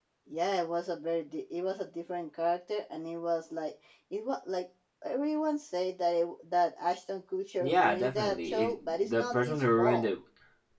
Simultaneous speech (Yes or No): Yes